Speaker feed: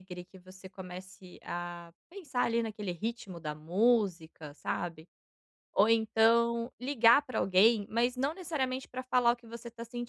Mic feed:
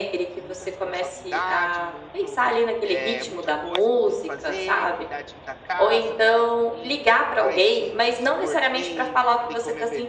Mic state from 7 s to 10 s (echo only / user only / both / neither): both